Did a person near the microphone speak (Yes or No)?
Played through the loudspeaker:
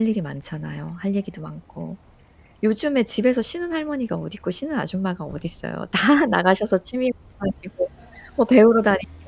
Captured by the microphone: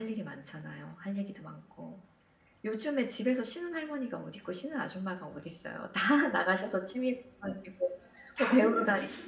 Yes